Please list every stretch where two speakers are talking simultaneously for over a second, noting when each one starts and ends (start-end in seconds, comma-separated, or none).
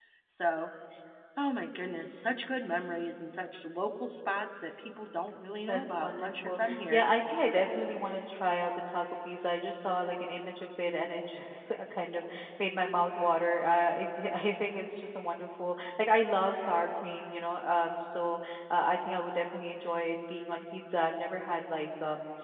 5.7-7.0